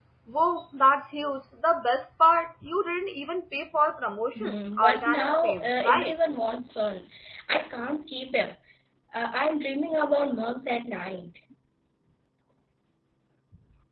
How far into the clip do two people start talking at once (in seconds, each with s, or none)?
4.4 s